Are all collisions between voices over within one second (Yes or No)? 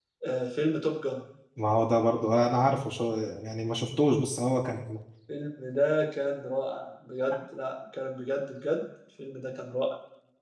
Yes